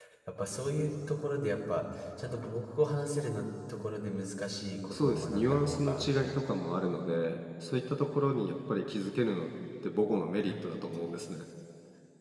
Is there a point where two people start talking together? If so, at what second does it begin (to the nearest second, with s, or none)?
5 s